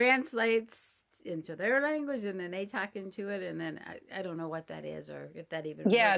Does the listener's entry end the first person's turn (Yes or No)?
Yes